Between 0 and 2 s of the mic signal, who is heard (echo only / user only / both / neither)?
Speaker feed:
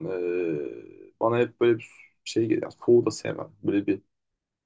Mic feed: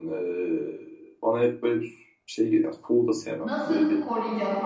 echo only